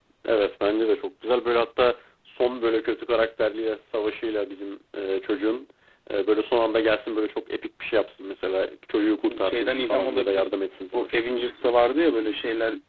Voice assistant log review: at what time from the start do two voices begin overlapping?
9.2 s

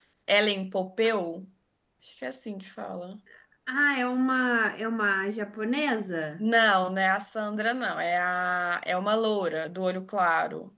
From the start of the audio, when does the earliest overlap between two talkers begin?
none

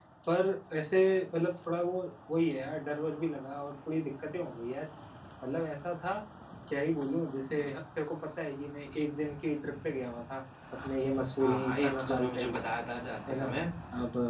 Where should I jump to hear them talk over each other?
11.4 s

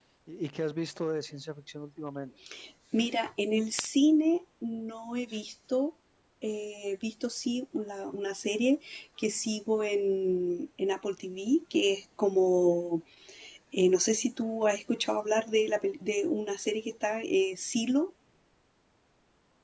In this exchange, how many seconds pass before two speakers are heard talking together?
none

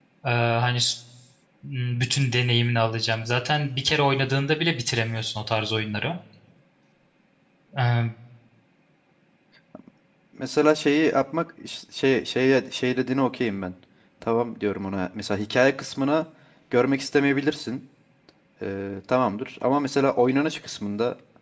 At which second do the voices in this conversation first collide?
none

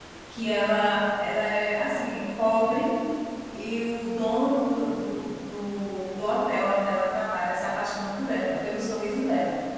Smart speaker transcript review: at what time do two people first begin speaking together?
none

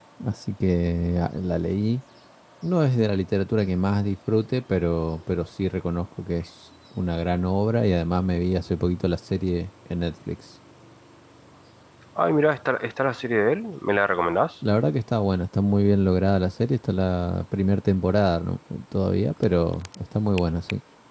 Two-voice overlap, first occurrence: none

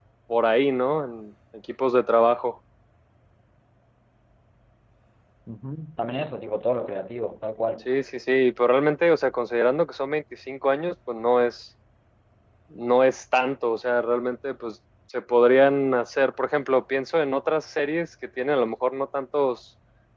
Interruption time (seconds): none

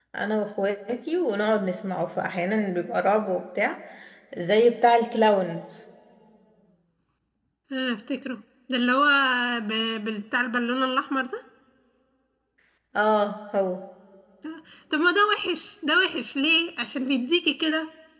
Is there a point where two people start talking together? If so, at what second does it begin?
none

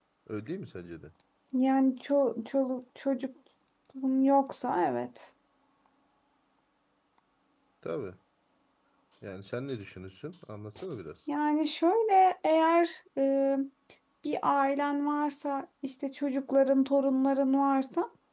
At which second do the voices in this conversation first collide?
none

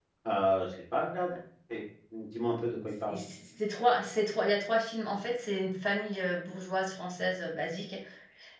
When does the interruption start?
none

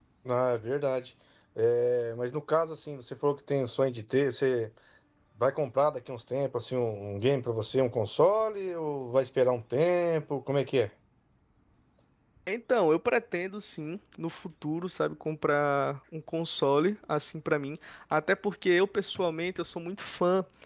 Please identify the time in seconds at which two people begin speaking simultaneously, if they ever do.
none

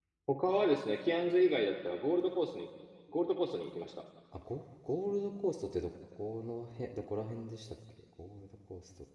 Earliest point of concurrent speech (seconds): none

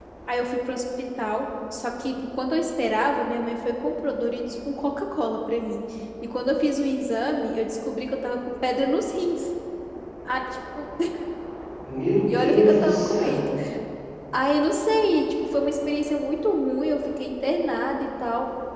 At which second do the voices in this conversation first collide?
12.3 s

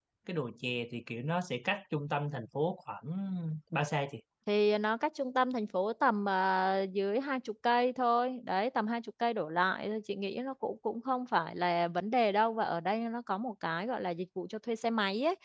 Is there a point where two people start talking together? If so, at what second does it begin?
none

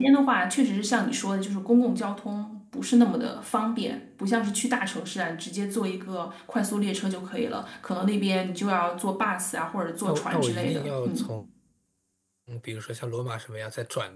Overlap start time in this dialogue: 10.0 s

